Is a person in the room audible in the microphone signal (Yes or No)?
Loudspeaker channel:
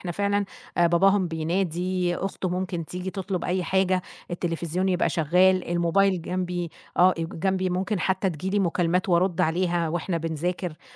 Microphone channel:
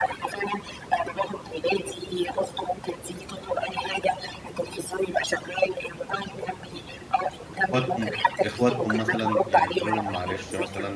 Yes